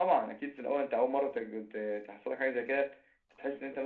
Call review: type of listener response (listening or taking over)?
listening